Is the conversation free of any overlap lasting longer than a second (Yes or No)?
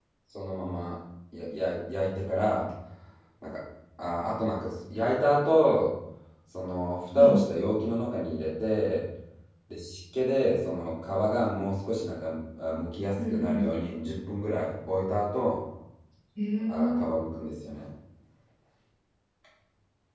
Yes